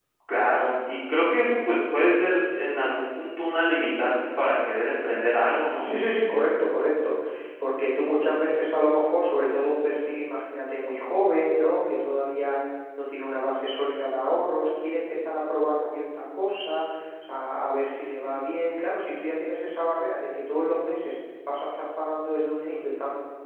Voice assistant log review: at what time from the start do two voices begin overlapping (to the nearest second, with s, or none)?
none